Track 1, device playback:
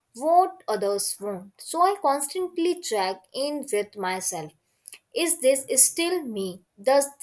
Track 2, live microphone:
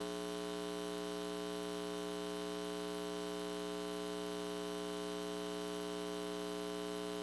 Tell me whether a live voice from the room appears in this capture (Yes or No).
No